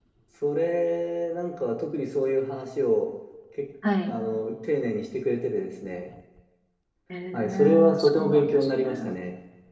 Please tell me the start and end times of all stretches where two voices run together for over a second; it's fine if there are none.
7.3-9.1

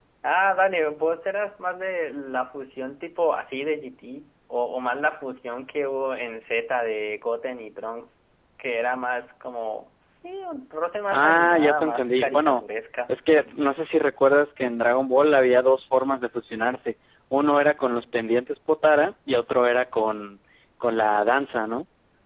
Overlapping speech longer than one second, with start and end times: 11.1-12.6

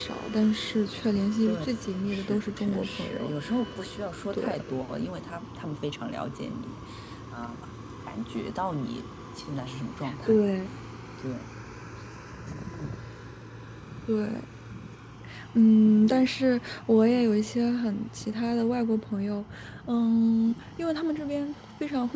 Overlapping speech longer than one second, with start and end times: 2.1-3.3

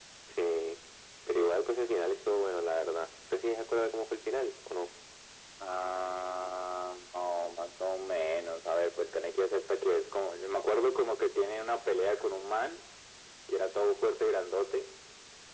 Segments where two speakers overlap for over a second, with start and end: none

